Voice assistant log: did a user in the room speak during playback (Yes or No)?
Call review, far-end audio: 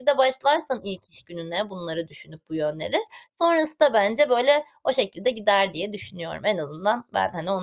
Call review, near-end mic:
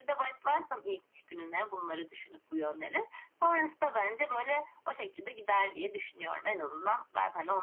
No